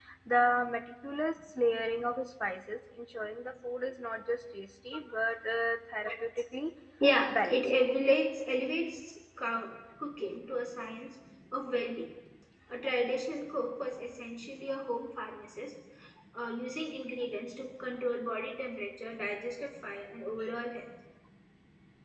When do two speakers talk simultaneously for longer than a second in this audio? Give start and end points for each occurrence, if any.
none

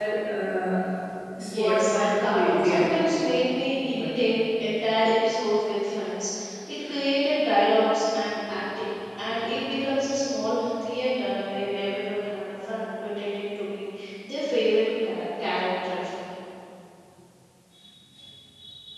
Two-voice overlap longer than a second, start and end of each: 1.4-2.8

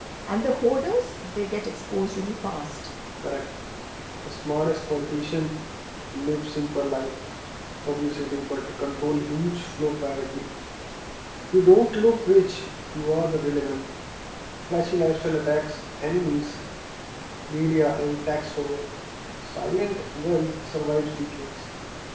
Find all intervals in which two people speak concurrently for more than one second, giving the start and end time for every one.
none

